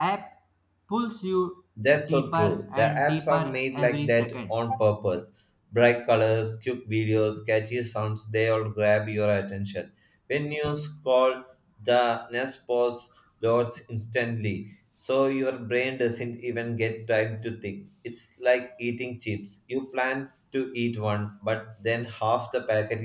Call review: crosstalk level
present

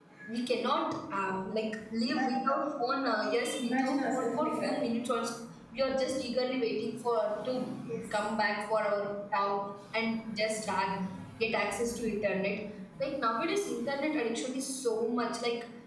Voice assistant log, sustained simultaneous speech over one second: present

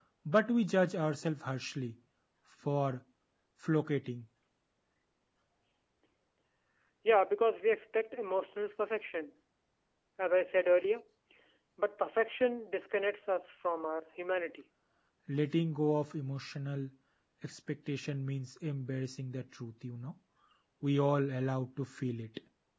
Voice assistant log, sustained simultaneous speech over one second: none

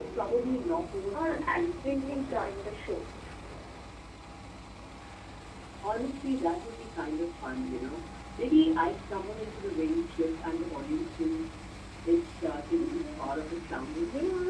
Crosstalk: present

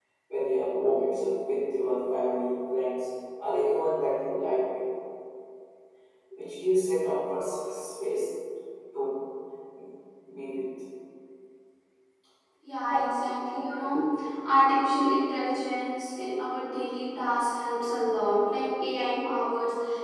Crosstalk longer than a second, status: none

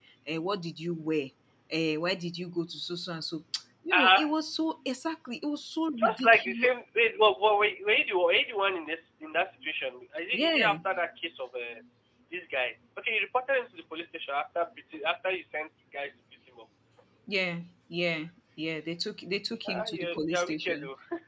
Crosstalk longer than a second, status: present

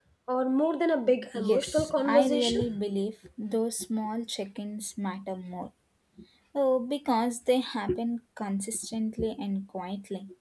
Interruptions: present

